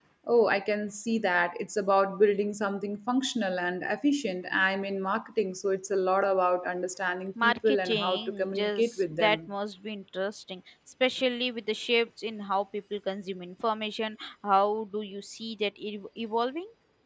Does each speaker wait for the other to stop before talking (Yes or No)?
No